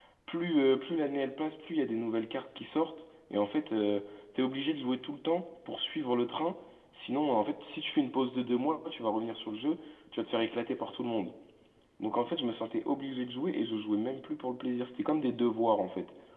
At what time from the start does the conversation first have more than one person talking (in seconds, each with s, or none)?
none